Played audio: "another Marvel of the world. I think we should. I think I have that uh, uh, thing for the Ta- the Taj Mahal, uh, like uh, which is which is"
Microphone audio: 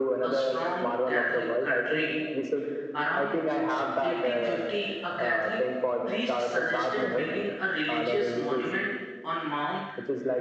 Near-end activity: present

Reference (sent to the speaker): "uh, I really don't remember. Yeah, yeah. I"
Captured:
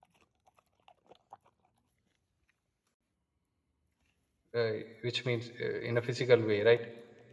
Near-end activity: present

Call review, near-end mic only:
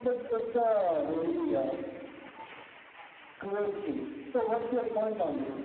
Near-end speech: none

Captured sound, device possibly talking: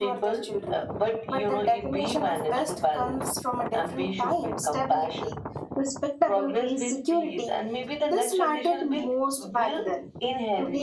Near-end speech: present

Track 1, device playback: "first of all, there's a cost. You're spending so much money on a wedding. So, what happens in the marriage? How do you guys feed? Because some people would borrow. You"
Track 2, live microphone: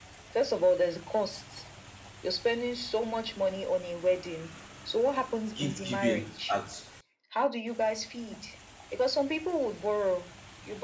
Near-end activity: present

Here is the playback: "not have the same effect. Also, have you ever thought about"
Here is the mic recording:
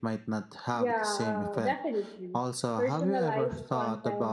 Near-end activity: present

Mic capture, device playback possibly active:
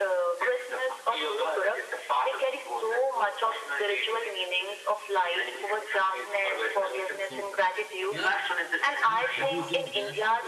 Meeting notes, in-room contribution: present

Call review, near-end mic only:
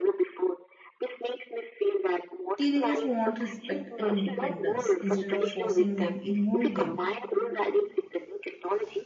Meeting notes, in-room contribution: present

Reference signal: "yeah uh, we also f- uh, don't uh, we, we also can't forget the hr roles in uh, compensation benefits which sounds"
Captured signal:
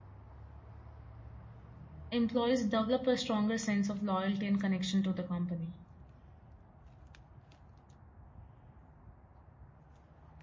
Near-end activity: present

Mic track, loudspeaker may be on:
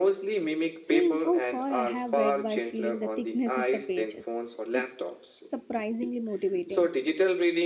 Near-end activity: present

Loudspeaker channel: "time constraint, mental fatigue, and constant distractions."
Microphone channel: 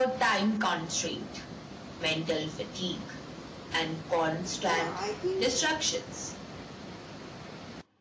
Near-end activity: present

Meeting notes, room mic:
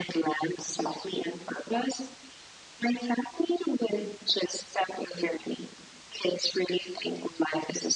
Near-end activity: none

